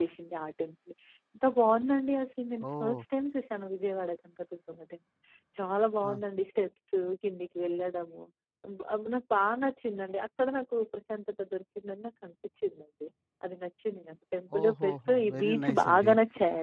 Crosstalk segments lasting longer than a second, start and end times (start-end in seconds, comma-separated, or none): 14.6-16.1